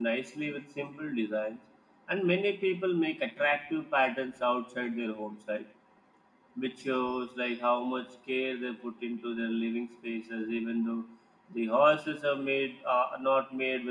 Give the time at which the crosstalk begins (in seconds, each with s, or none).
none